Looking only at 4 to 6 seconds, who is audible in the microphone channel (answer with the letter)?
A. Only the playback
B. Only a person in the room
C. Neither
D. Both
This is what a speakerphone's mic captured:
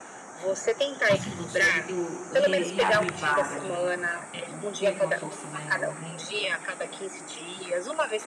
D